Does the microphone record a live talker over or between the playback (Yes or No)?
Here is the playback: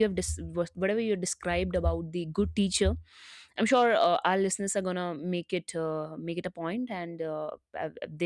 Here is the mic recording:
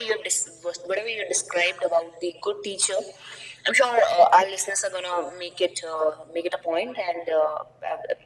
No